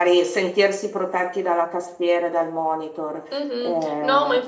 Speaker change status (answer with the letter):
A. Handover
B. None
A